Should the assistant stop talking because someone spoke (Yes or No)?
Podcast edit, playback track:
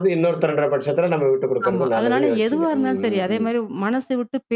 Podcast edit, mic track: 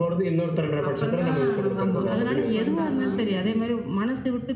Yes